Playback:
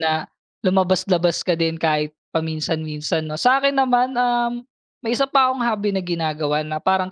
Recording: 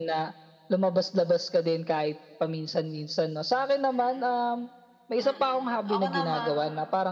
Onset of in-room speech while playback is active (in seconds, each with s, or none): 3.9 s